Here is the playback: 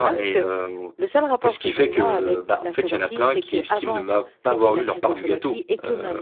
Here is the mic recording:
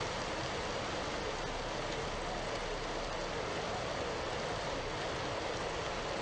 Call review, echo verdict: none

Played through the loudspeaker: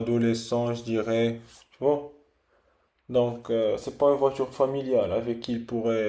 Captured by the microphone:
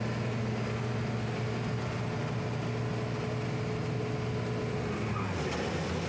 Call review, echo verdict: none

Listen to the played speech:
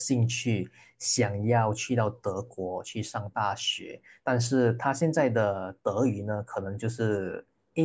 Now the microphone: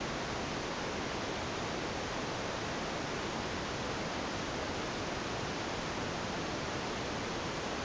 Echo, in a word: none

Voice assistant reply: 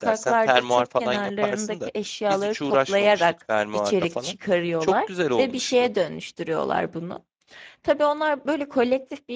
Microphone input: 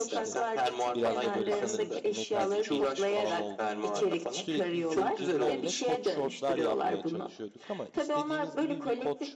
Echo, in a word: present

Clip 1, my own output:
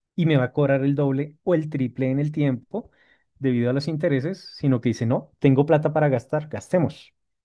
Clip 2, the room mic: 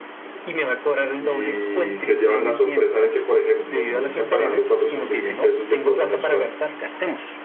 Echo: present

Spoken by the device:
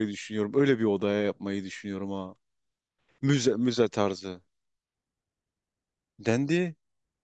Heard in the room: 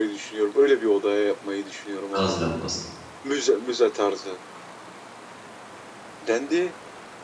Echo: present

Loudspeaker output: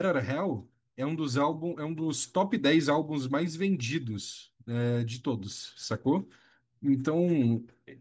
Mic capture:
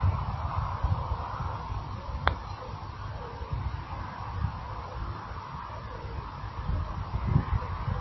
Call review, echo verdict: none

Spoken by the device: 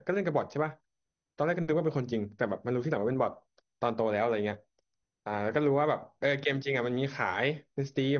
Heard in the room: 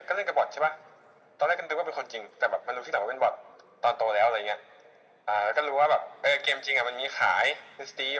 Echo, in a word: present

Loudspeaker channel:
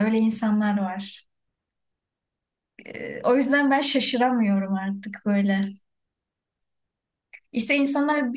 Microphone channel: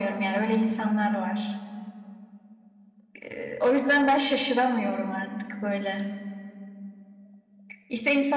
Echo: present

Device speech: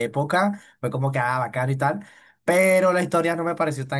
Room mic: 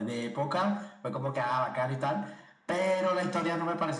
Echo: present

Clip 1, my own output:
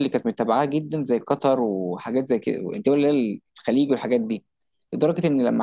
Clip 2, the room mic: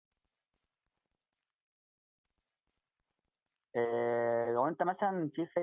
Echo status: none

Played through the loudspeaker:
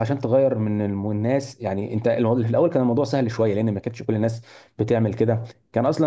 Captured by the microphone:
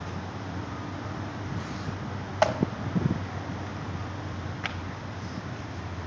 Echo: none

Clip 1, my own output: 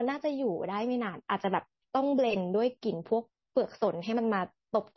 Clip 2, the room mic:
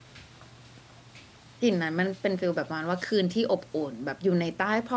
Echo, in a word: none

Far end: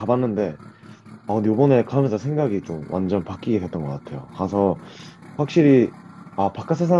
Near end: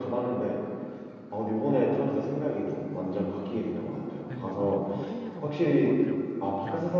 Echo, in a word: present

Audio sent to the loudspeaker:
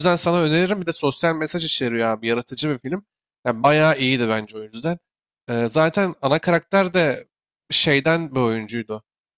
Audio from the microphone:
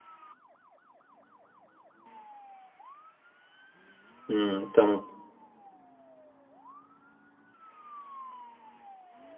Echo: none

